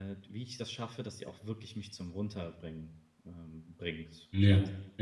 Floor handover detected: Yes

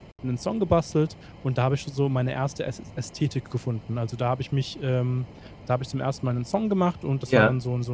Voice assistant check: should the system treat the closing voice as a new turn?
No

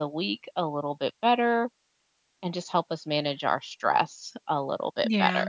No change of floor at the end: No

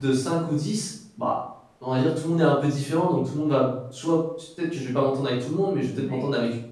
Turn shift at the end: No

